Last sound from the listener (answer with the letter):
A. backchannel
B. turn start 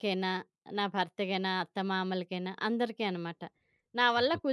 A